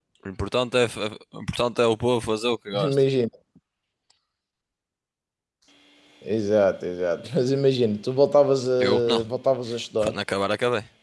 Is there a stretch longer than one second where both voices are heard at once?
No

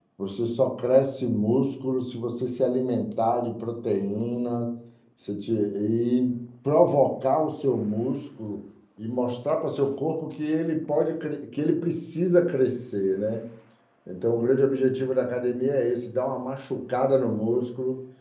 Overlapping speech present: No

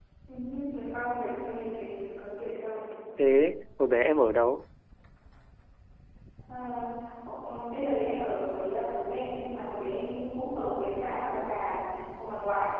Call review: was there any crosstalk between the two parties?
No

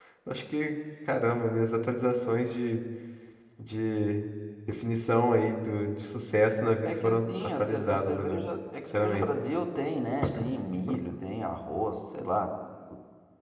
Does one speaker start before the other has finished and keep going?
Yes, from 6.8 s

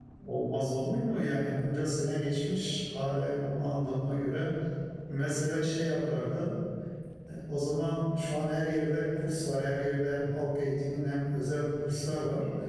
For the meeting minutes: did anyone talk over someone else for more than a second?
No

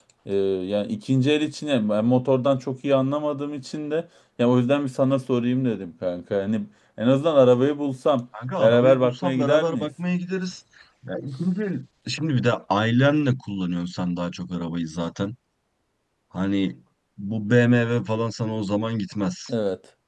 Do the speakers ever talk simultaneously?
Yes, from 8.6 s

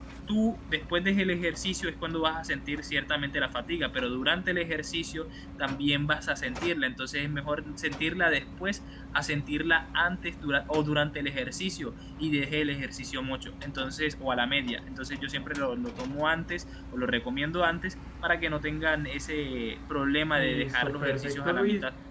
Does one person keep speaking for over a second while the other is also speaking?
Yes, from 20.4 s

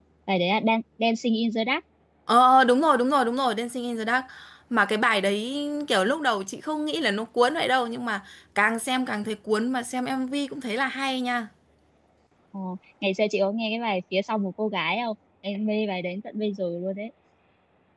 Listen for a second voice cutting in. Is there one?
No

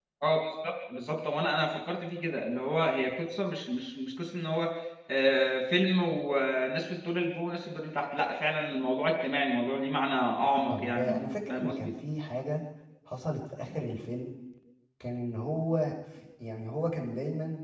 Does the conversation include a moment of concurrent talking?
Yes, from 10.7 s

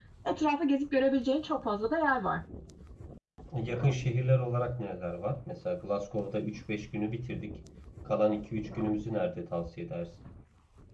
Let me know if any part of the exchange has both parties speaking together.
No

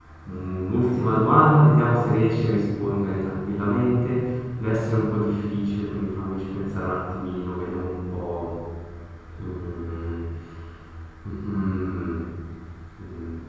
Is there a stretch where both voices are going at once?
No

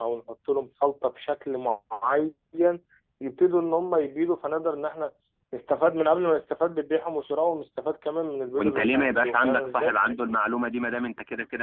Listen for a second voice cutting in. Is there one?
Yes, from 8.6 s

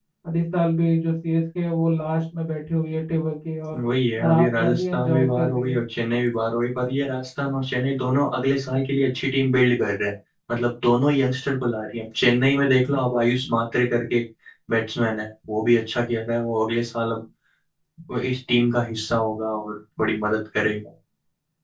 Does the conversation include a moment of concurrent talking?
Yes, from 4.2 s

